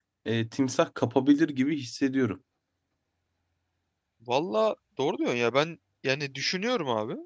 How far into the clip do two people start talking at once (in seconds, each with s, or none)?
none